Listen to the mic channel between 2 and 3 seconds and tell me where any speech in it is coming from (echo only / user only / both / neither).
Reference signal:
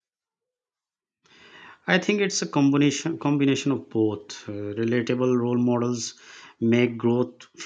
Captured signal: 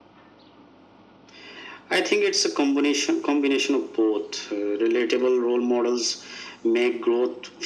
echo only